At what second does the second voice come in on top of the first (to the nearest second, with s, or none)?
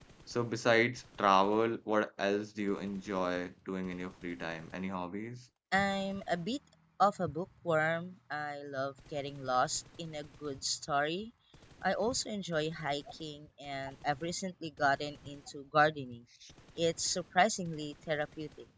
none